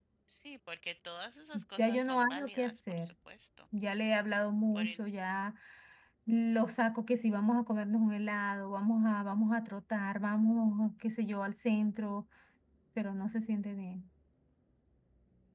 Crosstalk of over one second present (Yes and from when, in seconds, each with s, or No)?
Yes, from 1.8 s